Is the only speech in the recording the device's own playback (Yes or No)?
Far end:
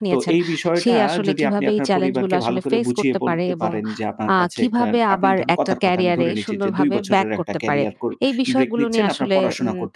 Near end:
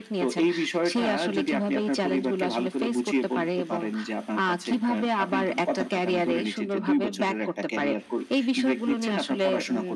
Yes